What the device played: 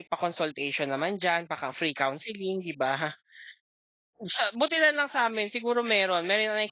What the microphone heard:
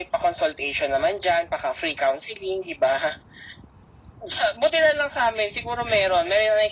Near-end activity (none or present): none